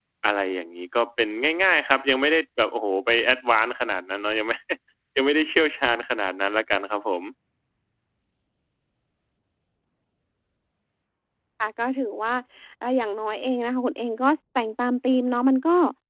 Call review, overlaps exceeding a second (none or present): none